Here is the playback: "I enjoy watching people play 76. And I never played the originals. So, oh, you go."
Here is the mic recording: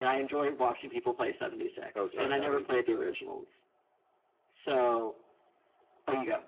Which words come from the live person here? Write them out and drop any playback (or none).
oh sorry, no no you you go ahead.